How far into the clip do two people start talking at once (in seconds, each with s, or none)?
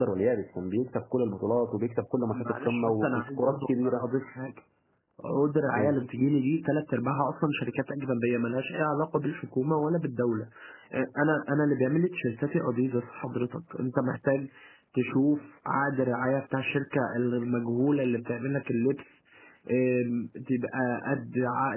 2.3 s